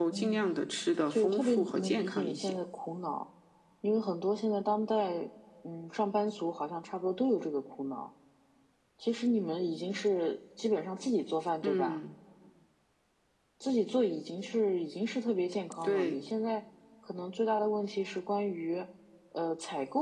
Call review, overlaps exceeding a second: present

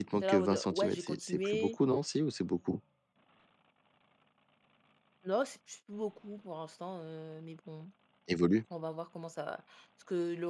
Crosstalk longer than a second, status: present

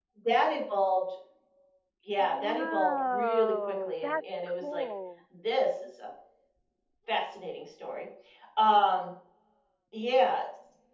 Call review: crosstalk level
present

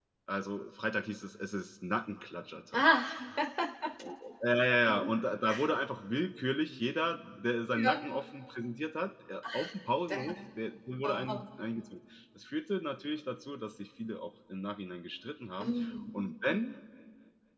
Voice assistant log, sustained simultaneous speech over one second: none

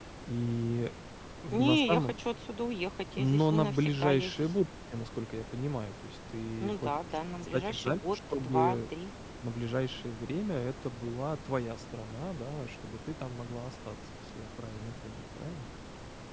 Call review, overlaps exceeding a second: present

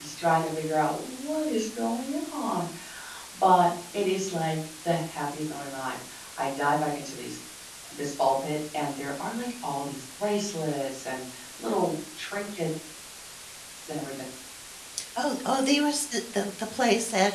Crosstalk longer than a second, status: none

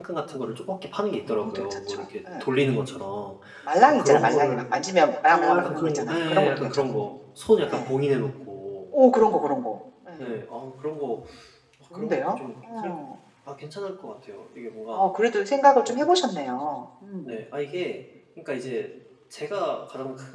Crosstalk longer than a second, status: present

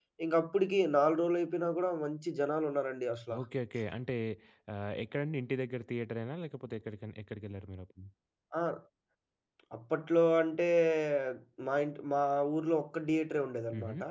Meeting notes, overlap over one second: none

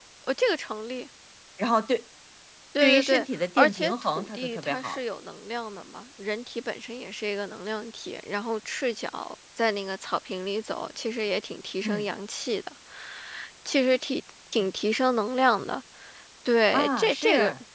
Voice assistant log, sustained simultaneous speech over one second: present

